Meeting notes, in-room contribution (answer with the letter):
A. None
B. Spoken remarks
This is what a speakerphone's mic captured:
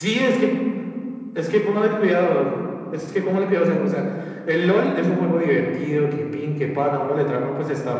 A